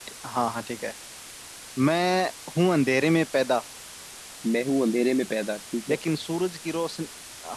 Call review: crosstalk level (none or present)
none